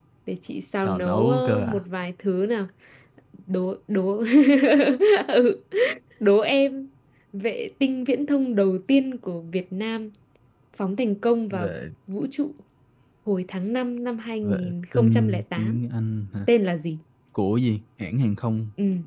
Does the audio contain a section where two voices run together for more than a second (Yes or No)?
Yes